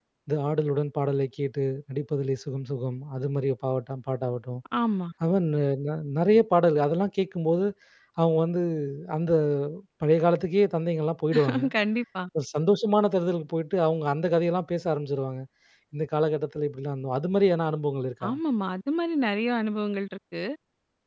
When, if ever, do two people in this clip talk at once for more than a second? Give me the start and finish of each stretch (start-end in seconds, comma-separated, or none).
none